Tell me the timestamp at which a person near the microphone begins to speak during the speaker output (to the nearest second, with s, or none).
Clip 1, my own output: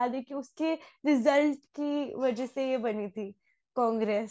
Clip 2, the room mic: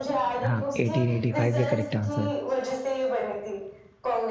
0 s